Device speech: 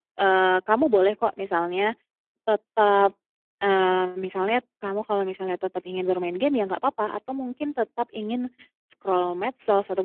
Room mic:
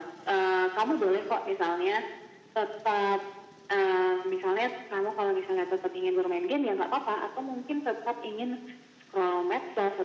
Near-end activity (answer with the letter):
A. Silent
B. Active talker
A